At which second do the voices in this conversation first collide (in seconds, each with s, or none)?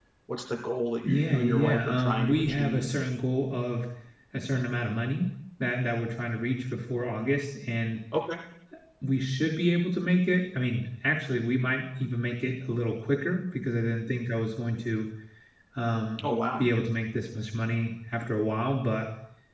1.0 s